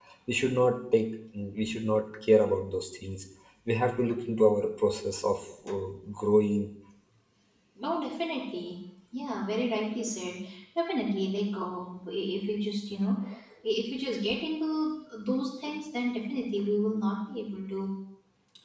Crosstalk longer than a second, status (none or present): none